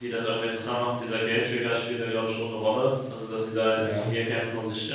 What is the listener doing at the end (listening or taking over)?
listening